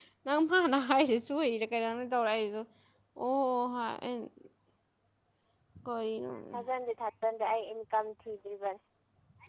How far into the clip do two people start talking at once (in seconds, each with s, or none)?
none